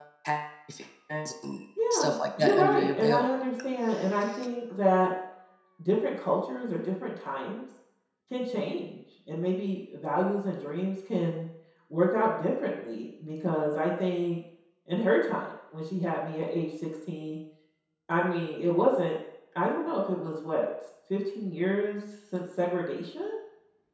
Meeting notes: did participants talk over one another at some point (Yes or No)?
Yes